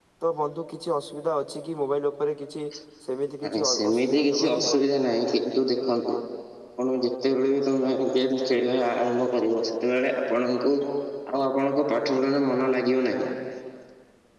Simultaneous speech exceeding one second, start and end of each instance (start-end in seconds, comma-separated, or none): 3.4-4.7